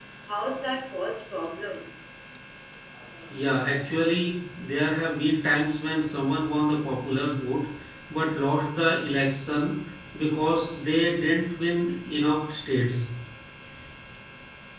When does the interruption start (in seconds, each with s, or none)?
none